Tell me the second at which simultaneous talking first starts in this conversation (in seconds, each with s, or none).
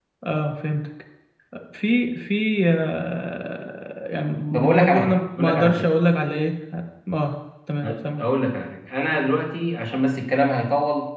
4.5 s